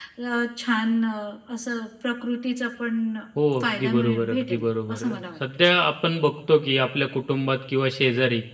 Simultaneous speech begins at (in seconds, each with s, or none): 3.6 s